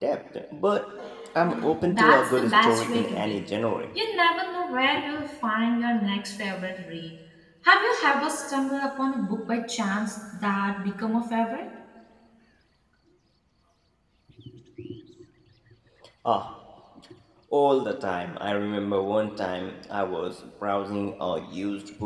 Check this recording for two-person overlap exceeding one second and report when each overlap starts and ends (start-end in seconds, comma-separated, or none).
1.9-3.4